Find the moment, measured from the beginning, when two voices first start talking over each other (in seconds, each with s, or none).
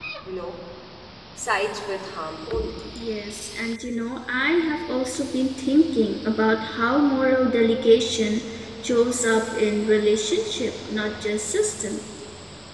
none